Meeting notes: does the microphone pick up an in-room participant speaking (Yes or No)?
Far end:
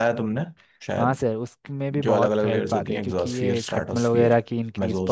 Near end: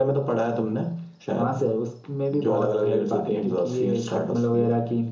No